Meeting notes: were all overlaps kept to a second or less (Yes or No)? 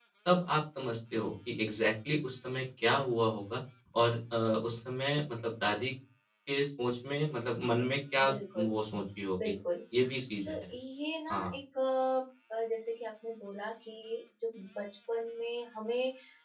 Yes